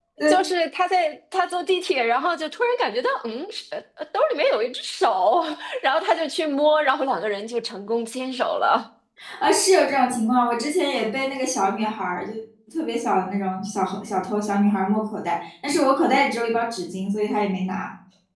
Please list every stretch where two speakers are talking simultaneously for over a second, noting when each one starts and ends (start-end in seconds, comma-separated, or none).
none